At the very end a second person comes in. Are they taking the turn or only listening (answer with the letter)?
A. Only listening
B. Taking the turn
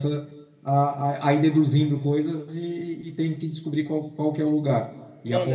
B